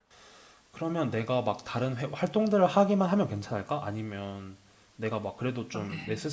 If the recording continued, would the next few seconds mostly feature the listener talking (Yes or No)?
No